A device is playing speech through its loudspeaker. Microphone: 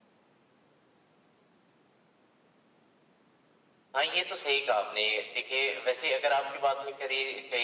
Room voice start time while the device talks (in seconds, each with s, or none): none